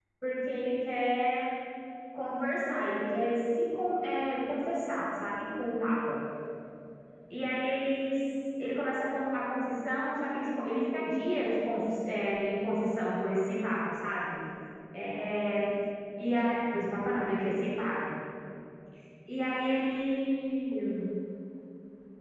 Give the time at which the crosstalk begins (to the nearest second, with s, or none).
none